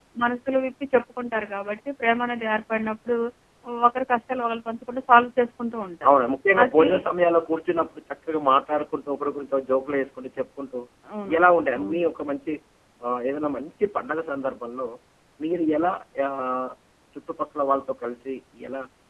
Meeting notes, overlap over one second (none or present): none